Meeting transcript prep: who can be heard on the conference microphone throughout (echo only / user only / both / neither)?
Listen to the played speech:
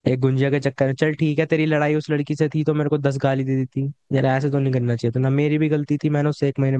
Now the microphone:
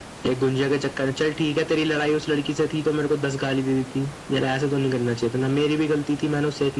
echo only